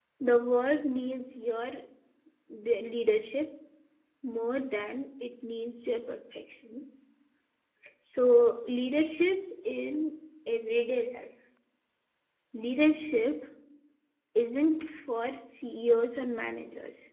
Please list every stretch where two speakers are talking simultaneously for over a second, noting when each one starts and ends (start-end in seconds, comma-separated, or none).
none